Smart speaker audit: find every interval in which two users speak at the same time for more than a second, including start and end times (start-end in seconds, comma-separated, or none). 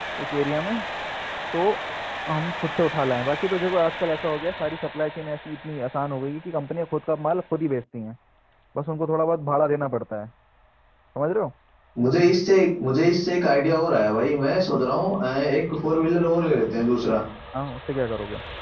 none